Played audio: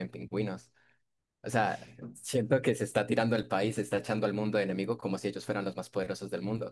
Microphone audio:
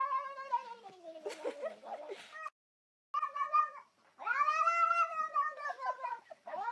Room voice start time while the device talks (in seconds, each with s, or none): none